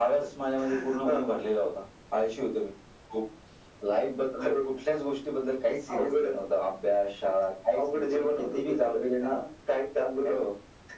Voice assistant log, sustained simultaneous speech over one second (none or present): present